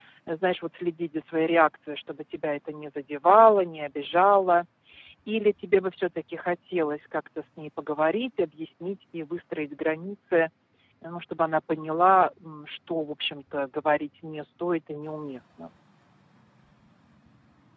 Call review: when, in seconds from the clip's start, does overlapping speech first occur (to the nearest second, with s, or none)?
none